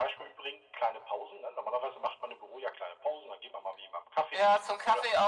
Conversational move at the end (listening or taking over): taking over